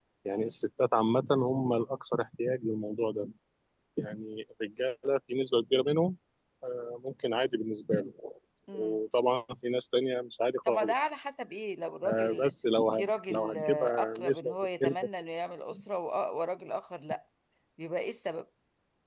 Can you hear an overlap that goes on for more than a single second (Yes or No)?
Yes